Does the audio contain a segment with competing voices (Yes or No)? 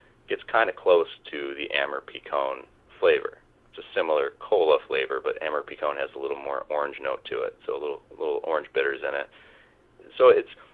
No